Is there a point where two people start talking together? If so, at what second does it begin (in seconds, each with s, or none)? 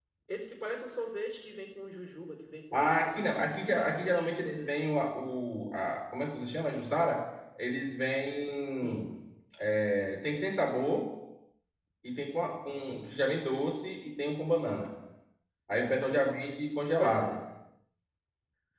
2.7 s